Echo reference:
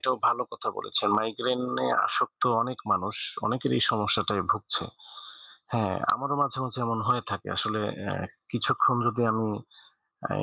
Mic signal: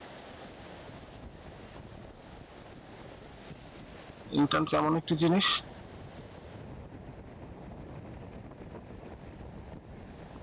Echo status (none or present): none